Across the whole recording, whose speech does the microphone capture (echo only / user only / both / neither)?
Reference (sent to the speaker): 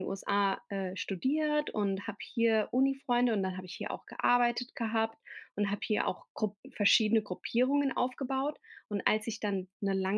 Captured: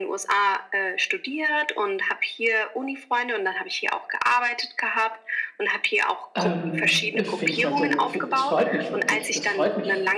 both